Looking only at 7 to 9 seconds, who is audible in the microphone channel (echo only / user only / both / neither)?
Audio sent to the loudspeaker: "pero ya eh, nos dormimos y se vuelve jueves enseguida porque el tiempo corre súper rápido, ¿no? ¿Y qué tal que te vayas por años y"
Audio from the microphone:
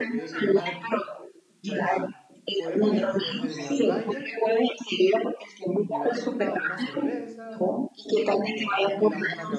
both